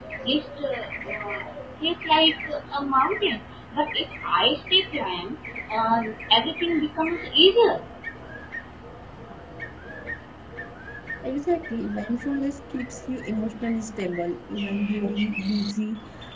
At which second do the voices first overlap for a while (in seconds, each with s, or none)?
none